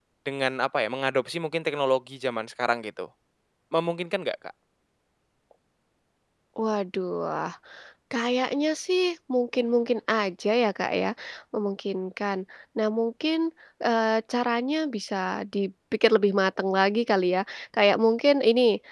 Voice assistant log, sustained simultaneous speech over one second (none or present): none